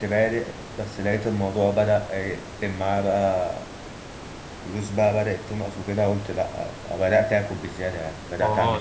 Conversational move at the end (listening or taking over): taking over